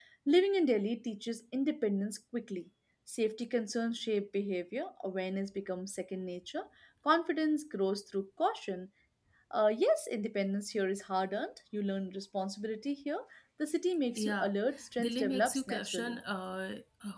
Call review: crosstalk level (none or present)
present